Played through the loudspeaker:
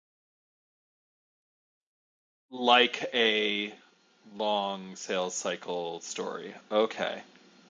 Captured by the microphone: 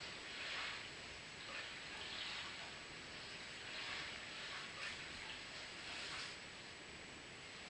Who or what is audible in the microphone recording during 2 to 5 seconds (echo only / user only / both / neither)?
neither